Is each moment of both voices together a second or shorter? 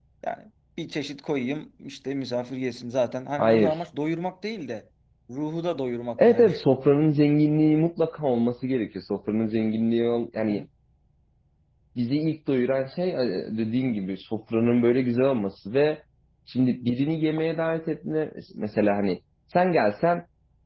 Yes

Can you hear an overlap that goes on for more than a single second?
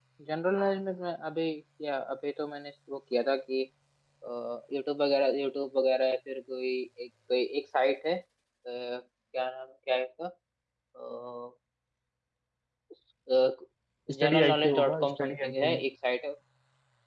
Yes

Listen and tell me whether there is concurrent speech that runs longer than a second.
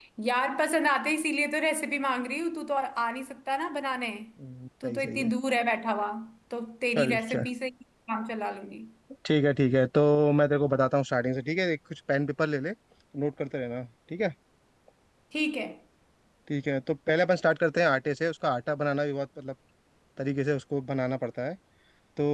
No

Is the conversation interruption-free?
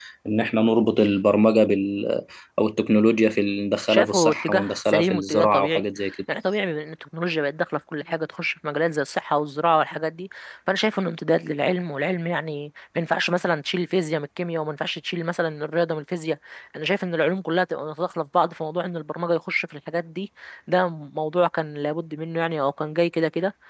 No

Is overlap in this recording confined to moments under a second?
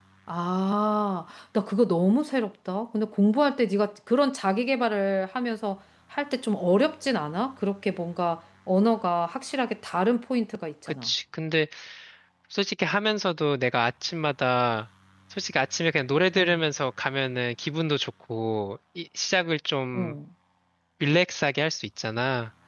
Yes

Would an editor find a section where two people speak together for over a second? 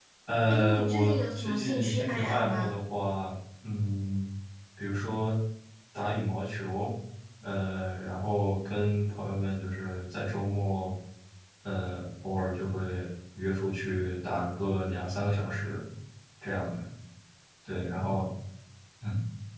Yes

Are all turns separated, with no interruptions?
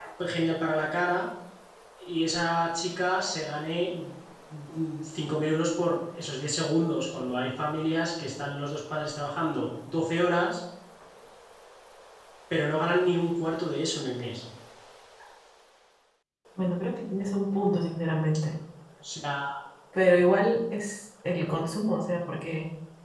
Yes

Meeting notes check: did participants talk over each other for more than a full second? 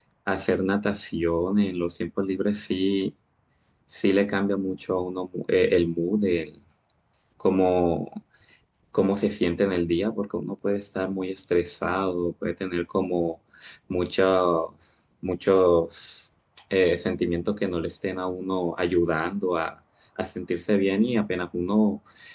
No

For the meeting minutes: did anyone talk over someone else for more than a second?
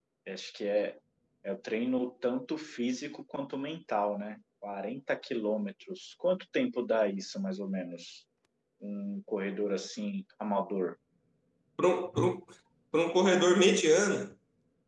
No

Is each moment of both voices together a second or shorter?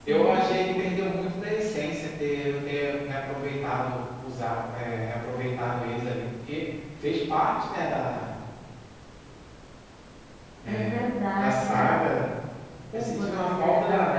No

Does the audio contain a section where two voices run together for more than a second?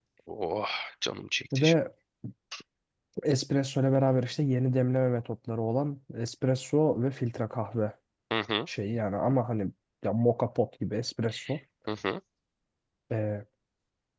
No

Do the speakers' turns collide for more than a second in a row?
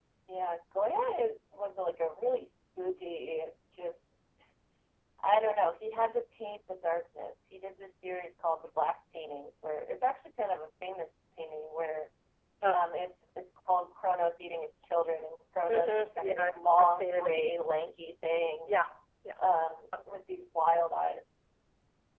Yes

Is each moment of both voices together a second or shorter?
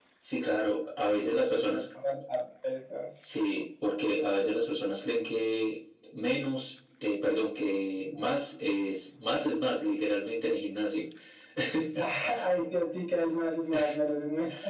Yes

